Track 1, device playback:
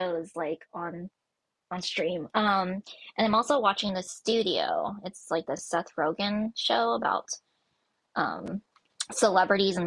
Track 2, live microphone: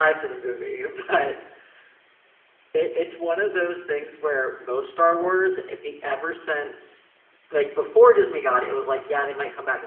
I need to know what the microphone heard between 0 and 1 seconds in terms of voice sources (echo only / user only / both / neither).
user only